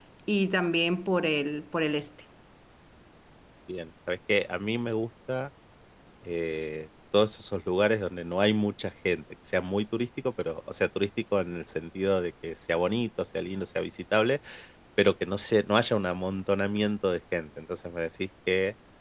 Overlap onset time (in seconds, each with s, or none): none